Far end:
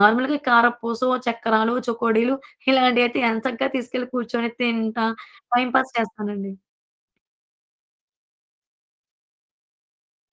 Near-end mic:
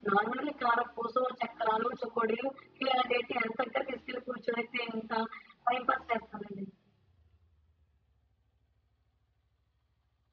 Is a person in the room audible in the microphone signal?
No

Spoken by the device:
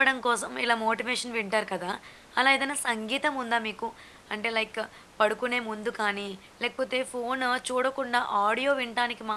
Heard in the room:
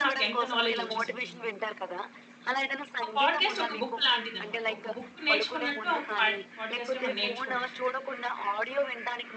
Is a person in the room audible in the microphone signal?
Yes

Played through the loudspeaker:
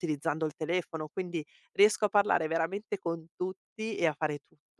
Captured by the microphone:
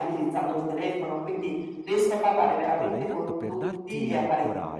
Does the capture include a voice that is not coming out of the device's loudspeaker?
Yes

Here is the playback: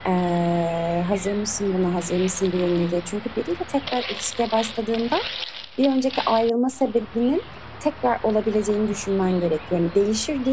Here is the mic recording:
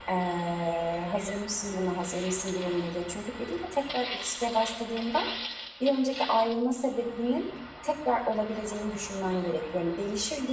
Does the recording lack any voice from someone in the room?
Yes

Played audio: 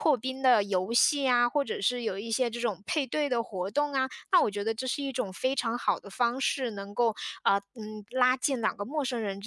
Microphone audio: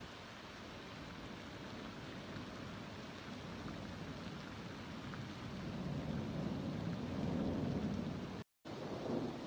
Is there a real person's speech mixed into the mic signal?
No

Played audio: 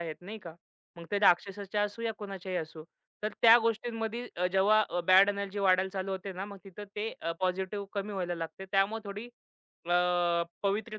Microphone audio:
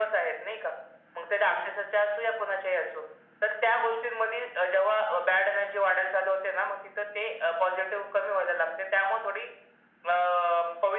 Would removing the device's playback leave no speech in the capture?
Yes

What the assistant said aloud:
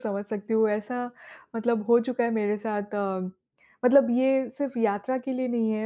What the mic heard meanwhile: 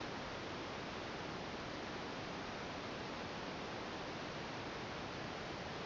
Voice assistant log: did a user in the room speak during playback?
No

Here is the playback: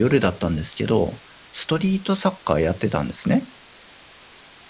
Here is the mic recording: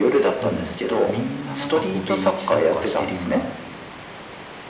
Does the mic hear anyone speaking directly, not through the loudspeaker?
Yes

